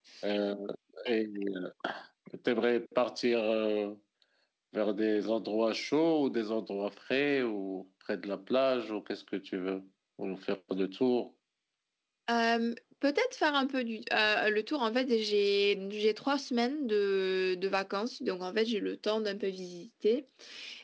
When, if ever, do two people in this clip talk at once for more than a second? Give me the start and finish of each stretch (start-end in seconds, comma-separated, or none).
none